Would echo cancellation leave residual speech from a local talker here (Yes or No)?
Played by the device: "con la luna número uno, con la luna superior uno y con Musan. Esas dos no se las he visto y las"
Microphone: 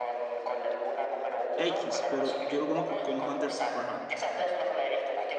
Yes